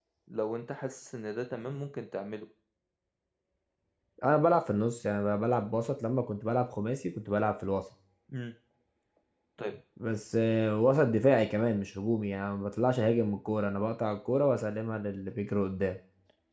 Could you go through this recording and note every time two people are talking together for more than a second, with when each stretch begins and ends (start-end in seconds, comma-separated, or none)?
none